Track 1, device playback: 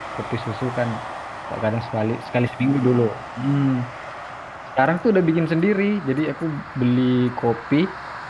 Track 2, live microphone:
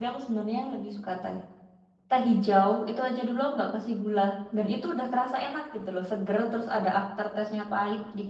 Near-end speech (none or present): present